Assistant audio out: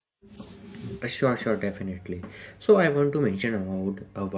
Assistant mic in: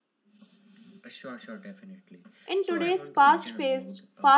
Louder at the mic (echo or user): user